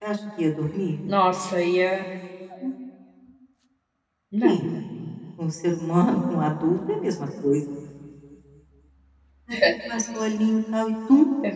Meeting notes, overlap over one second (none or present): none